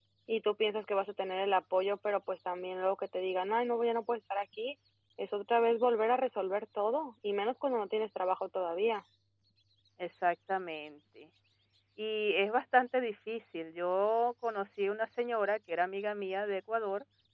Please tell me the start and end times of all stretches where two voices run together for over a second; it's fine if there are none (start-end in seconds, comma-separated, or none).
none